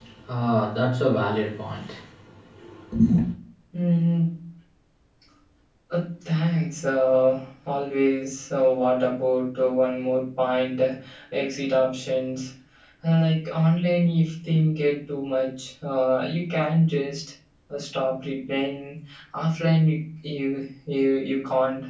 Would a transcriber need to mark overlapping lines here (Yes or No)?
No